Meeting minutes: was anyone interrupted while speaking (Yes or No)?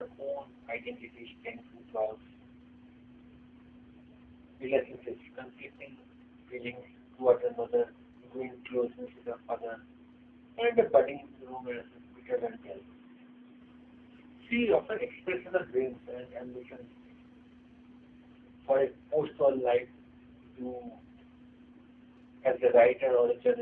No